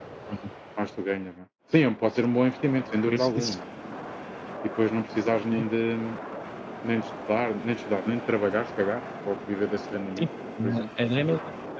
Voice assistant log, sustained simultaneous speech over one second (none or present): none